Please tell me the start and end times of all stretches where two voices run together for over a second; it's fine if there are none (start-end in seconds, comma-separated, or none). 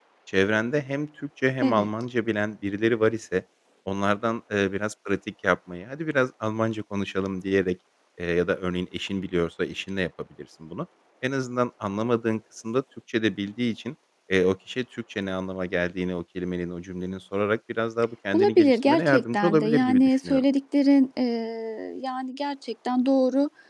18.3-20.4